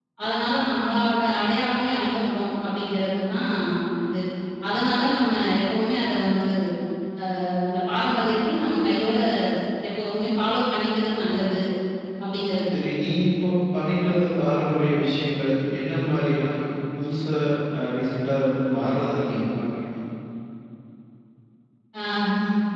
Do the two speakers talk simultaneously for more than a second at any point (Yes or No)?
No